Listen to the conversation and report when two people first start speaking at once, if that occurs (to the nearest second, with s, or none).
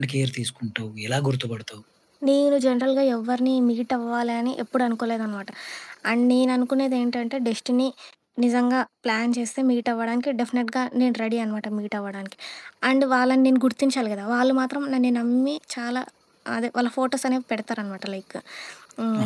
none